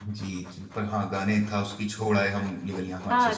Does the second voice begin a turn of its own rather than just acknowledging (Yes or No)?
Yes